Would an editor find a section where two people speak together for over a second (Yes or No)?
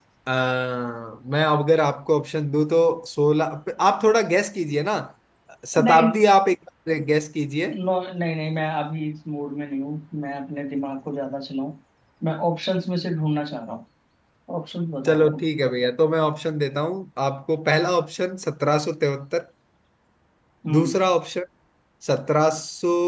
No